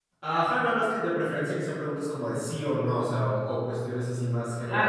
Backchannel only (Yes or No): No